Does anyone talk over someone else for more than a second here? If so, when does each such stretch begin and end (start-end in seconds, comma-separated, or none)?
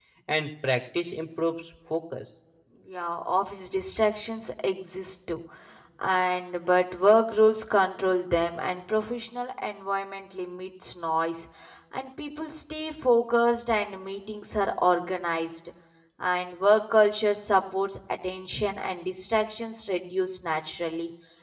none